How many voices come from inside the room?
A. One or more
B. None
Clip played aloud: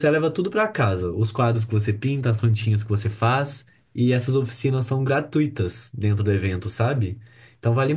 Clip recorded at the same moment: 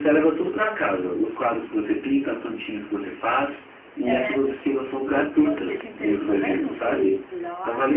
A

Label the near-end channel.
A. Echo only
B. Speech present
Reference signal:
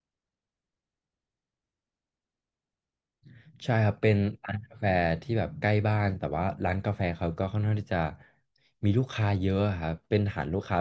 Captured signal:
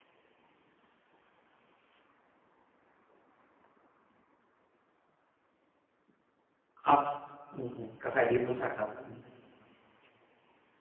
B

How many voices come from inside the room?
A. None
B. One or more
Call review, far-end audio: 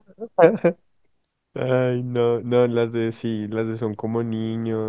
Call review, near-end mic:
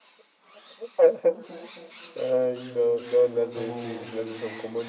B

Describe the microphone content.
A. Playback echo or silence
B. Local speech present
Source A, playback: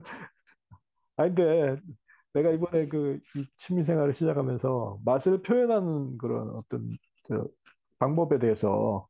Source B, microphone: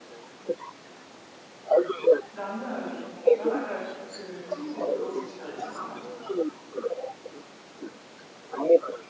B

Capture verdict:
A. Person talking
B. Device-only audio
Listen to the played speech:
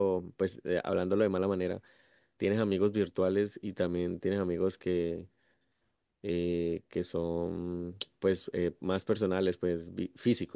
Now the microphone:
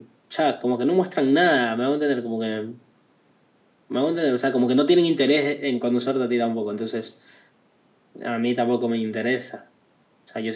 A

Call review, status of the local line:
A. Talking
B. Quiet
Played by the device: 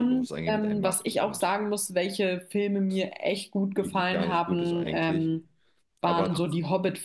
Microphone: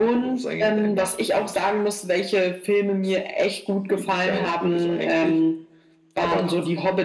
B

